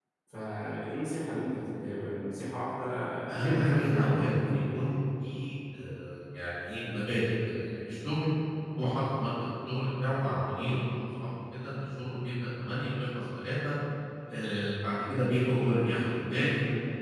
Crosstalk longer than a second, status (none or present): present